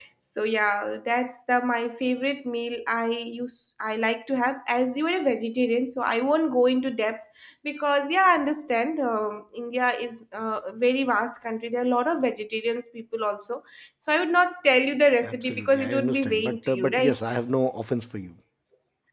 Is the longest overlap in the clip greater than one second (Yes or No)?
Yes